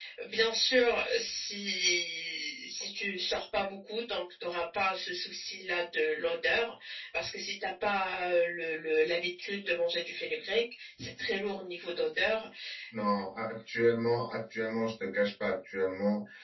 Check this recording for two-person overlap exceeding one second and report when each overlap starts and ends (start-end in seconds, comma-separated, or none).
none